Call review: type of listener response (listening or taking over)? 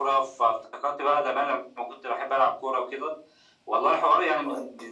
listening